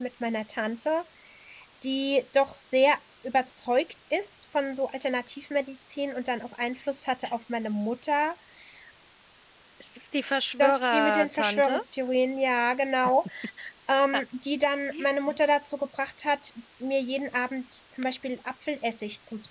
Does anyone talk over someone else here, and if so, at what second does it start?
10.6 s

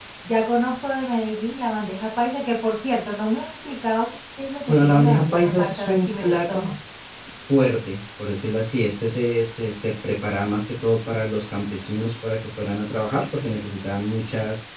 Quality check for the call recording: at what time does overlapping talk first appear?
4.7 s

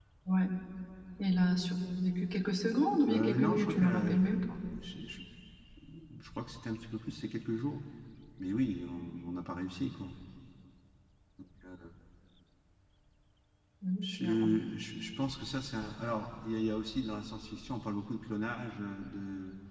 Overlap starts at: 3.1 s

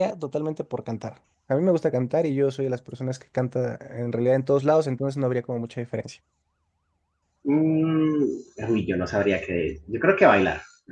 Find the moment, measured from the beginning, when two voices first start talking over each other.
none

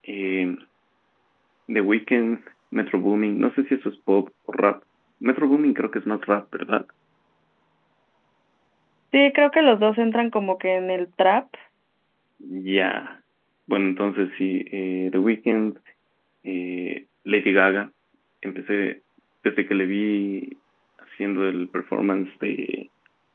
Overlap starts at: none

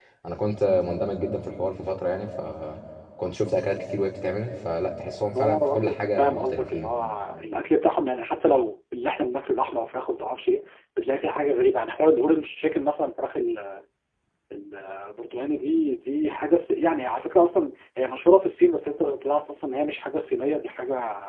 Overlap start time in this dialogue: 5.3 s

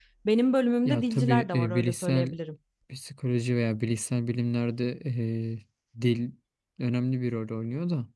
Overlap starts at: 0.8 s

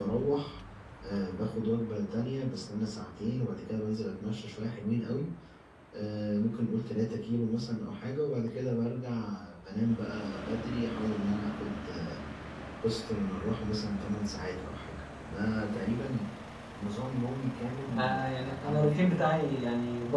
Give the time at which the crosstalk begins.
17.9 s

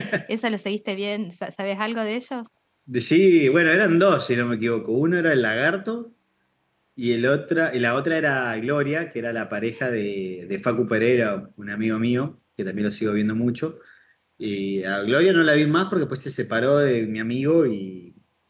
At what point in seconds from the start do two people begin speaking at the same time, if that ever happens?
none

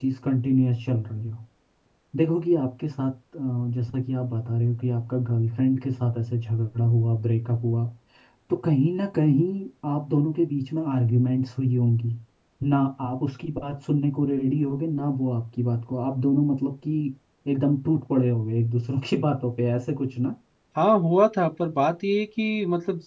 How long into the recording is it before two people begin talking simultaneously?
none

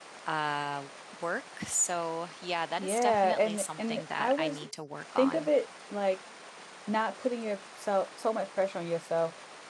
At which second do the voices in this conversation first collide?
2.8 s

